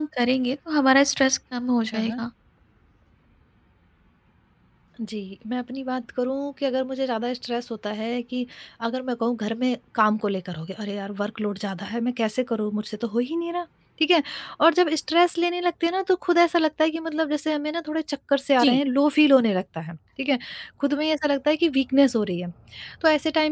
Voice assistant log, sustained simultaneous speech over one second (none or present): none